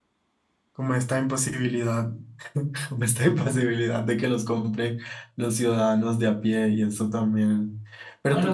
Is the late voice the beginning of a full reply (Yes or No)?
Yes